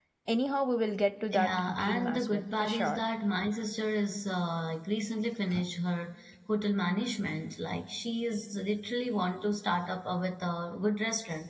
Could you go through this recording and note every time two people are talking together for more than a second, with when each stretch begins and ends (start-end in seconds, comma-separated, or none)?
1.3-3.0